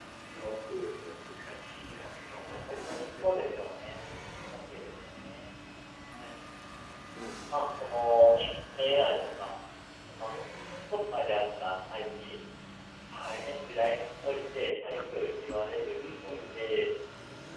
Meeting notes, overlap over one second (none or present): present